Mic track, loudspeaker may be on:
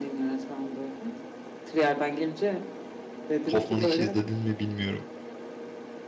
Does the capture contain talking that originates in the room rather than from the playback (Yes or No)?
Yes